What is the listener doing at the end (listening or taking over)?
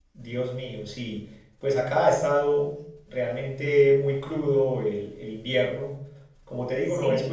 listening